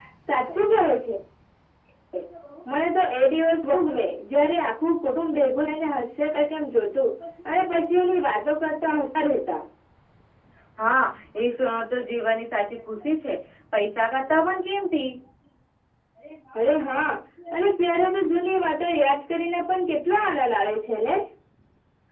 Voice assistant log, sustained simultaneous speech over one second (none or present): none